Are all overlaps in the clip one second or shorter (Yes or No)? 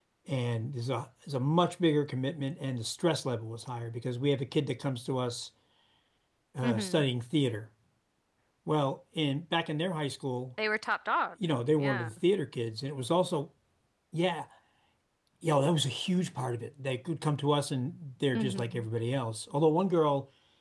Yes